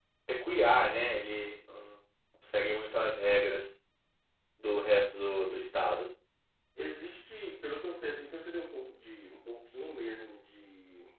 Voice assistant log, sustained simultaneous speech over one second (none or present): none